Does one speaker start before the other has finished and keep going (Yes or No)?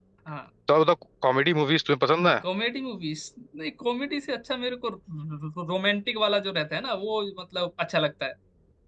No